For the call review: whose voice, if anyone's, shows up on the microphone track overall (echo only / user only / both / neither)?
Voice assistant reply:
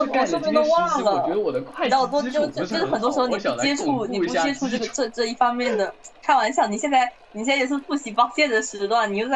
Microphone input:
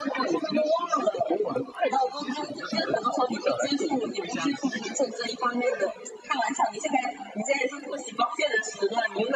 echo only